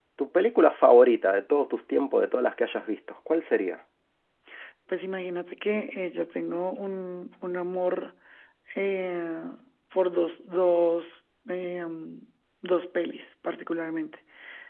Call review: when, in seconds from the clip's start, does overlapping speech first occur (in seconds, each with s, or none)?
none